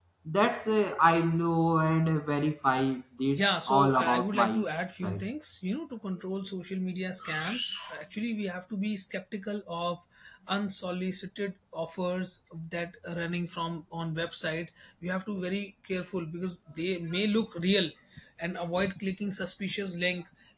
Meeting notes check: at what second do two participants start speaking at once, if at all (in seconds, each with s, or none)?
3.4 s